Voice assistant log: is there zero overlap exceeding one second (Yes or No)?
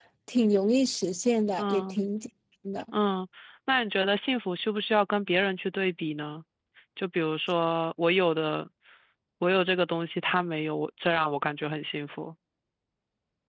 Yes